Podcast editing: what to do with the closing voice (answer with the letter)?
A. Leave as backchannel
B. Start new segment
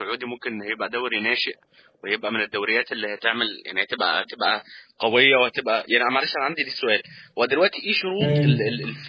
A